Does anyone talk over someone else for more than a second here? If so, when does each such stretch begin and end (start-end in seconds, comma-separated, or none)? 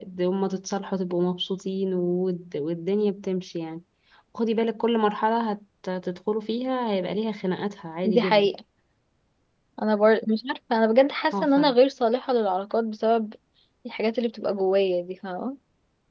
none